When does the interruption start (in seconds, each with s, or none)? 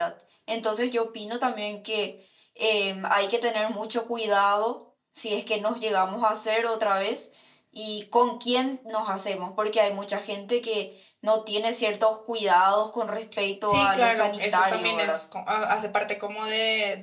13.6 s